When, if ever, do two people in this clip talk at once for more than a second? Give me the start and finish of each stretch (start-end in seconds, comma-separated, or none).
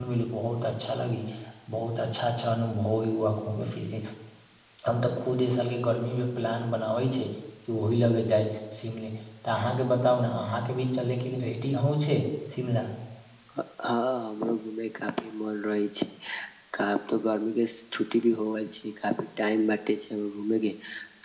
none